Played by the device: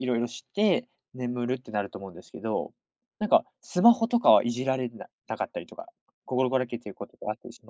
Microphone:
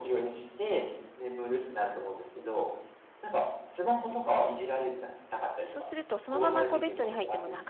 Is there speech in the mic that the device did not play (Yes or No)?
Yes